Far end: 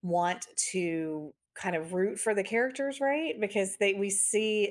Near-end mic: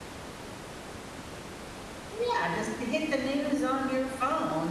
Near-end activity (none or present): present